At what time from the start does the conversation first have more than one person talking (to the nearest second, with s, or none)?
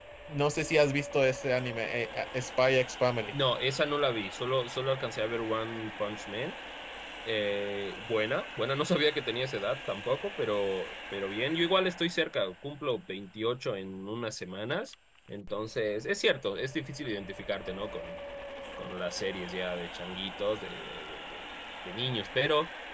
none